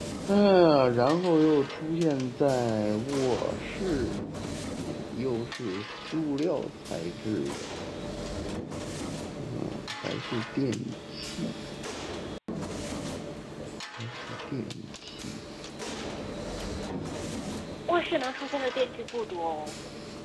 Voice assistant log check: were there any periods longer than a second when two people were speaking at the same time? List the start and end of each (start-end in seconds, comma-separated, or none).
none